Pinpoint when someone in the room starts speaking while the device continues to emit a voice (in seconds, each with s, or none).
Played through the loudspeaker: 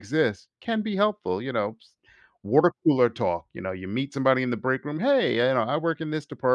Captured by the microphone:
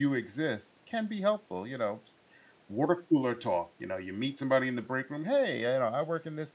none